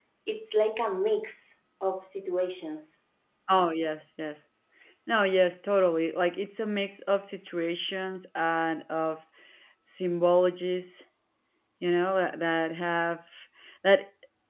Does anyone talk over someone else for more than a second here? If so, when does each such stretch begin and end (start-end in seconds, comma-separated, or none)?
none